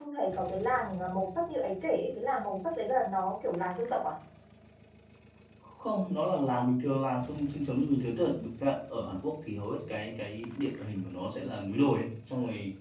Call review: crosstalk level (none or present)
none